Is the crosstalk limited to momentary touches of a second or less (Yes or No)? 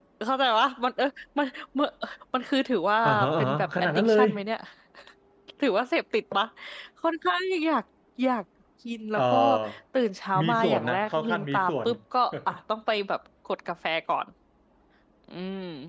No